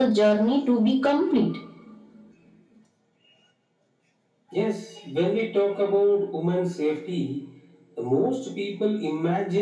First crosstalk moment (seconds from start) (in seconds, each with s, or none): none